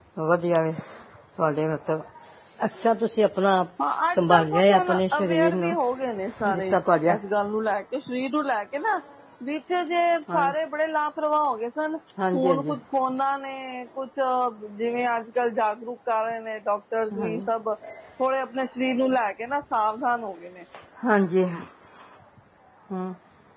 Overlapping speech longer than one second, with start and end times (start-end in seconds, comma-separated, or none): 4.1-5.8